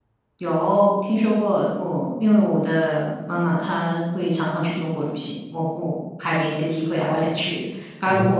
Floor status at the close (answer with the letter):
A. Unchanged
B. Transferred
A